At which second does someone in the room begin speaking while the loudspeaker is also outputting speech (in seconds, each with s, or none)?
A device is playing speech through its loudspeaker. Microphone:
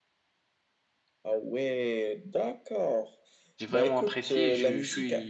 3.6 s